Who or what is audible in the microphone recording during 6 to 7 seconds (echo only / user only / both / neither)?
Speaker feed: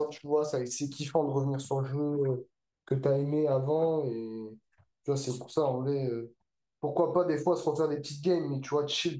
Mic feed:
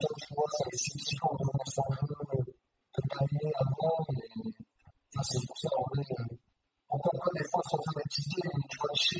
echo only